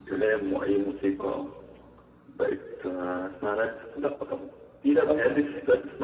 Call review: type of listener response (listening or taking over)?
listening